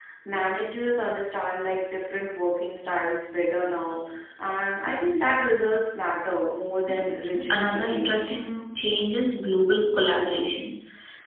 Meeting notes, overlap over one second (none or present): present